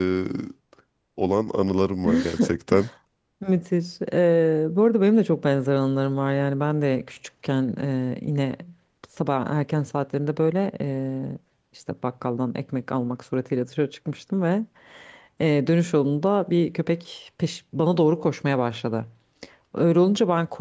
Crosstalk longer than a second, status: none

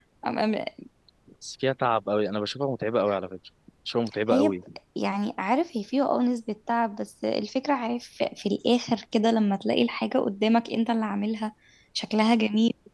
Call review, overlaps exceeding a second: none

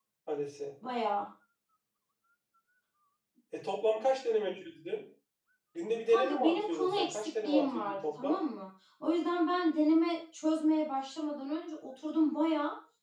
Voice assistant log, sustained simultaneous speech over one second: present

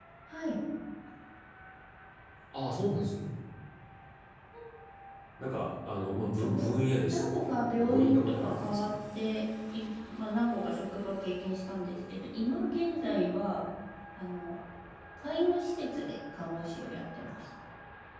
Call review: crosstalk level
present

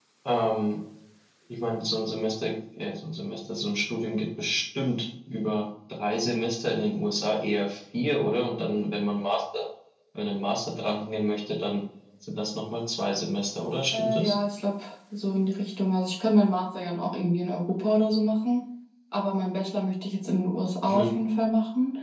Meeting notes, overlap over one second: none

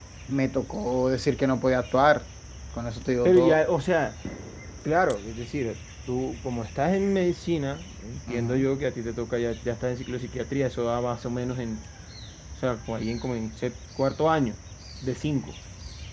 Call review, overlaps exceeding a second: none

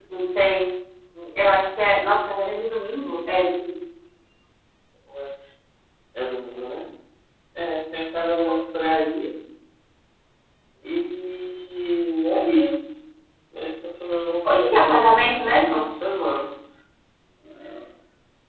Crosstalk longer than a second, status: present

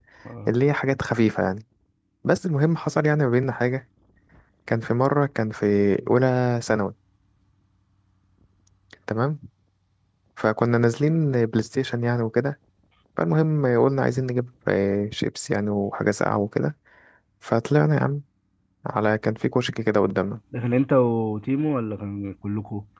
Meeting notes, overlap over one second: none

